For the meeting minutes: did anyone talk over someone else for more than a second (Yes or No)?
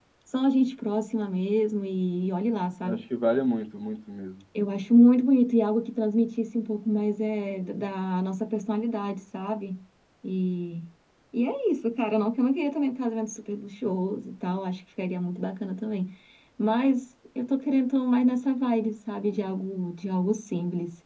No